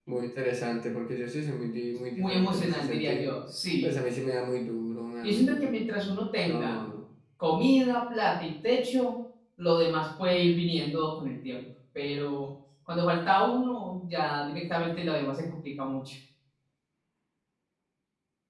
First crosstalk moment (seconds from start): 2 s

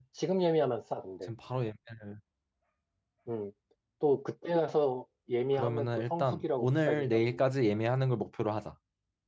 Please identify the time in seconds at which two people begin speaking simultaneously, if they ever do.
6 s

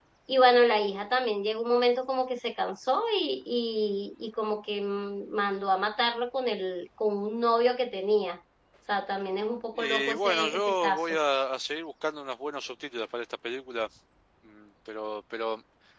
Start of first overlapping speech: 10 s

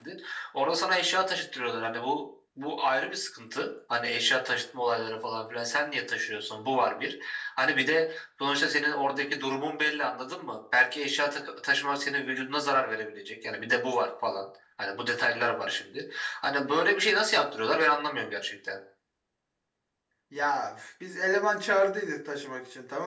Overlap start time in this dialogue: none

